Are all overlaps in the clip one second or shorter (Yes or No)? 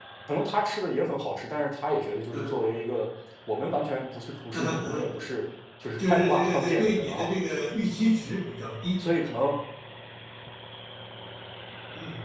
No